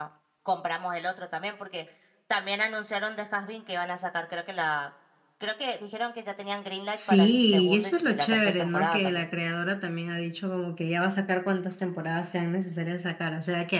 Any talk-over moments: Yes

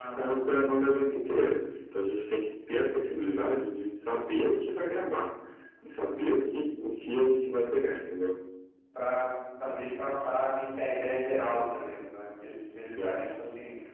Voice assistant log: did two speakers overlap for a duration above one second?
No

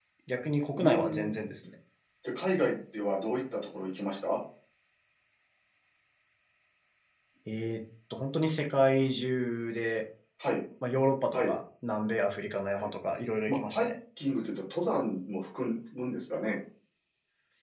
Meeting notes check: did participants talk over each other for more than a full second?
No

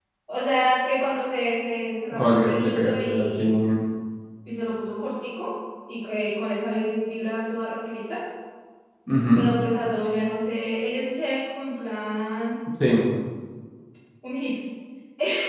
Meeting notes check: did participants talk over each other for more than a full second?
Yes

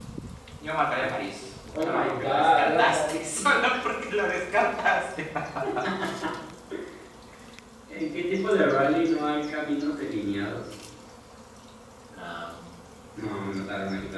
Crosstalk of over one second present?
Yes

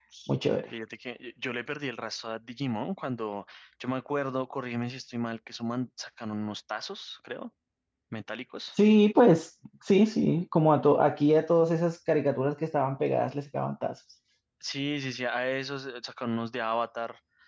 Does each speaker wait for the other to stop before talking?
Yes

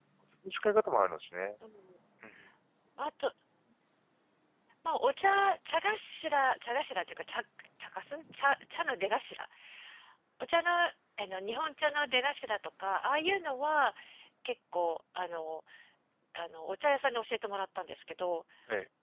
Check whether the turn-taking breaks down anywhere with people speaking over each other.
No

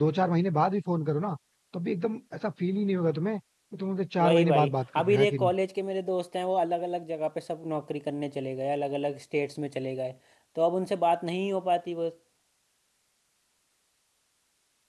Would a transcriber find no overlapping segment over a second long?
No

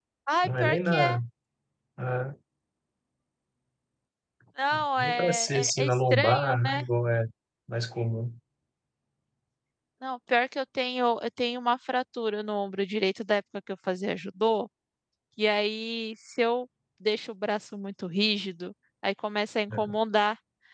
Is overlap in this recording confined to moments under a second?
No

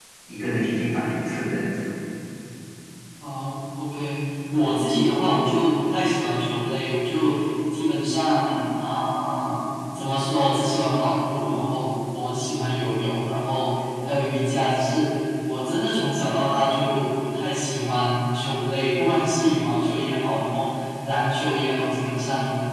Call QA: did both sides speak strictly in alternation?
Yes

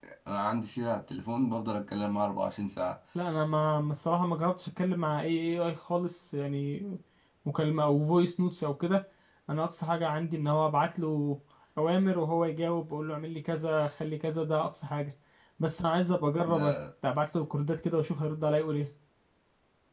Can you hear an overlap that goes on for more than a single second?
No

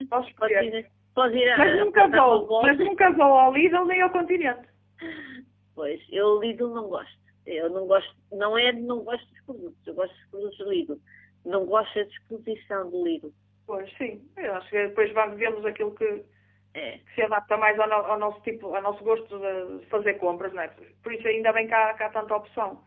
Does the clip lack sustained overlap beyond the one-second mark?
No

